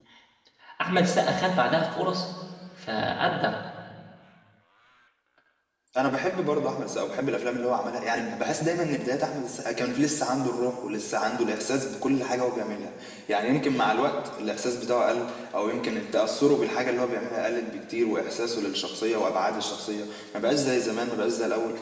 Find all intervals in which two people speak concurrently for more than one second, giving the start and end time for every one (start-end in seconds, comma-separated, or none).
none